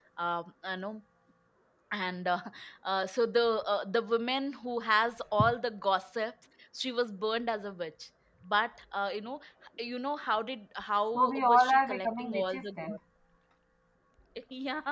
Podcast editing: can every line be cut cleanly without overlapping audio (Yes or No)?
No